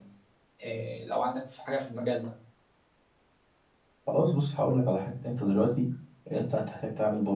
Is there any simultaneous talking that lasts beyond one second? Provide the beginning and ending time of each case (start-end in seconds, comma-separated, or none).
none